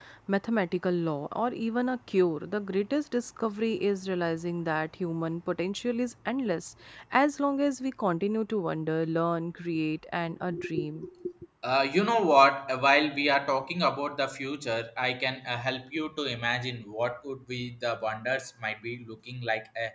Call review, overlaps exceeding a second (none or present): none